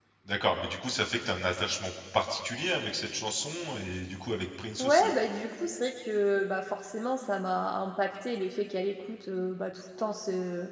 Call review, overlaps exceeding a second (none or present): none